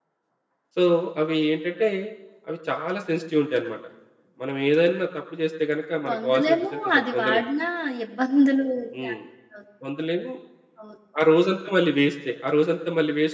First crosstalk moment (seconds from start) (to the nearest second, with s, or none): 6 s